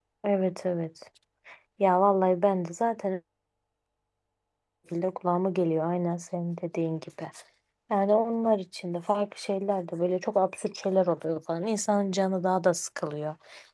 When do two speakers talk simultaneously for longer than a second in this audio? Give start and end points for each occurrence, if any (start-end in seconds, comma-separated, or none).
none